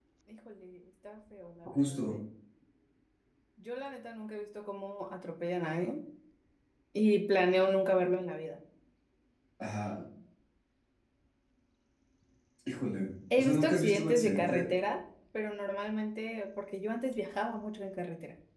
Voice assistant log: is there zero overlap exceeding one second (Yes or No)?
No